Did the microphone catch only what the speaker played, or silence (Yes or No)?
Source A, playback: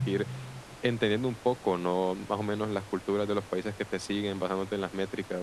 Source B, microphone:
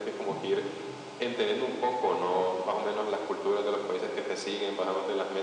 Yes